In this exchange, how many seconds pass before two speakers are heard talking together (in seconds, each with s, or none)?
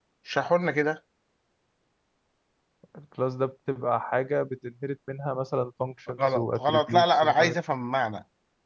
6.2 s